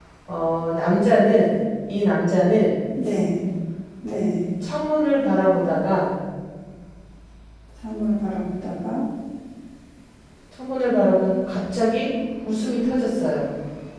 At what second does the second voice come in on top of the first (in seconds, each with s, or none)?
none